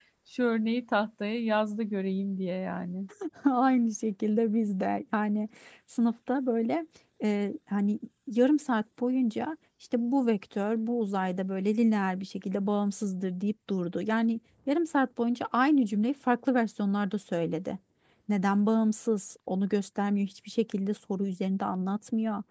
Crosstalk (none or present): none